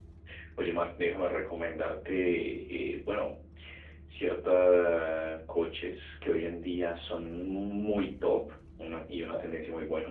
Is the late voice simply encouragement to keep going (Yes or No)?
Yes